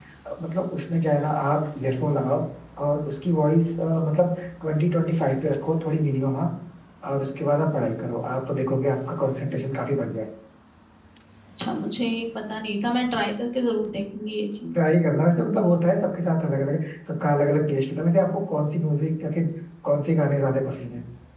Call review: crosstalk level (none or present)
none